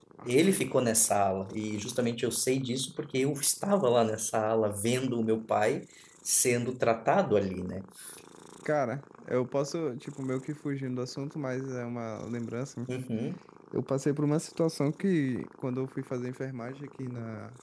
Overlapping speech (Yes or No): No